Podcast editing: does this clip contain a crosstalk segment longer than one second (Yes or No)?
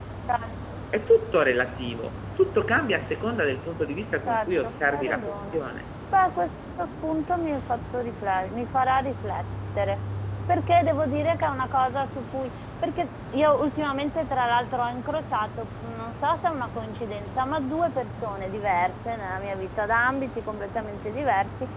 Yes